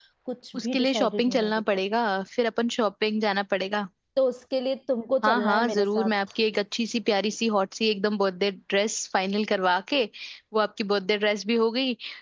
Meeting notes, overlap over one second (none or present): present